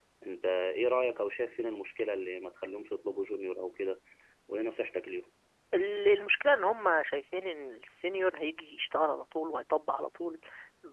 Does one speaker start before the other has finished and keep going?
No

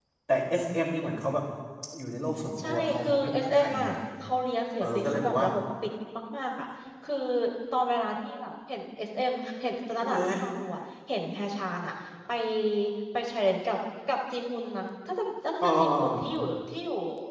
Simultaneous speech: Yes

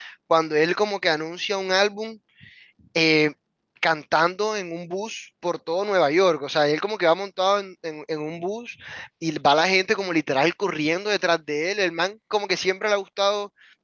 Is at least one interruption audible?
No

